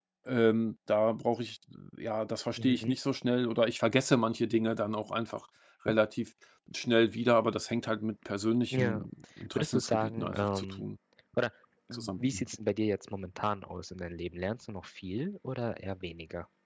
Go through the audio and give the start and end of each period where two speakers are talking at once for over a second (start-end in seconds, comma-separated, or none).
9.6-10.8